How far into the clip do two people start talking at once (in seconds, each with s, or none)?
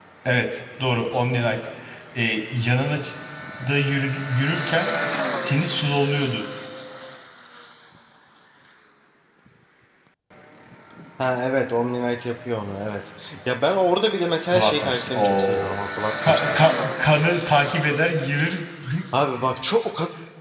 14.5 s